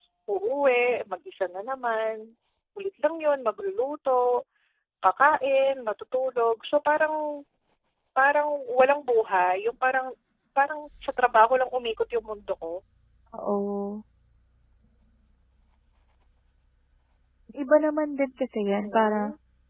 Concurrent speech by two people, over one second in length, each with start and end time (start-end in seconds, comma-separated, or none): none